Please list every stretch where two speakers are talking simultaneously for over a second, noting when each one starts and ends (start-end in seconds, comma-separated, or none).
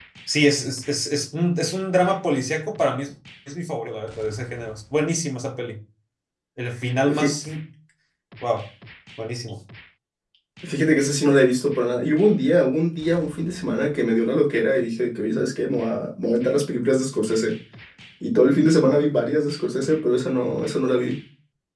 none